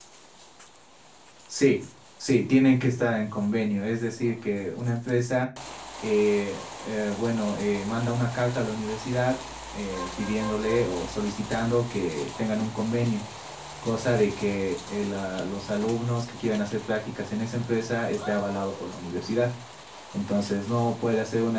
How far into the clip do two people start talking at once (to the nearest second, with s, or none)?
none